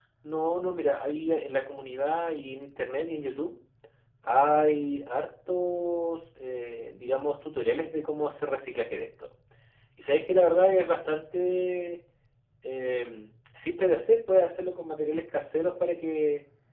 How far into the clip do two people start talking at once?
none

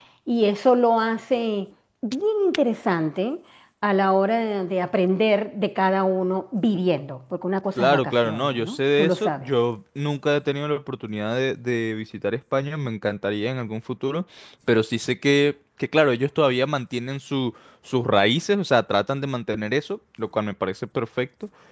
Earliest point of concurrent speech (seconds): 7.8 s

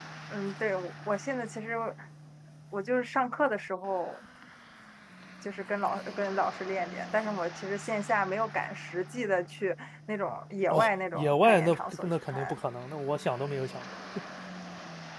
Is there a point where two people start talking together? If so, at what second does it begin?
10.7 s

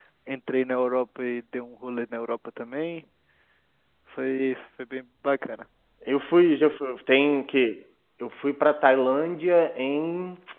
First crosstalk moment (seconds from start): none

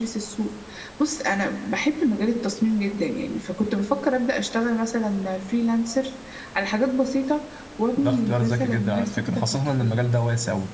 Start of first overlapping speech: 8.0 s

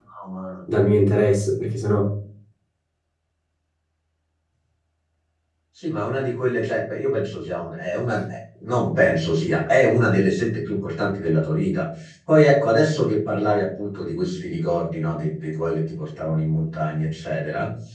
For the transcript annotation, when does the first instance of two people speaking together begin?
none

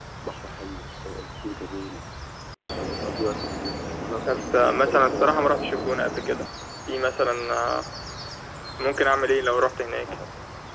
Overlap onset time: 4.3 s

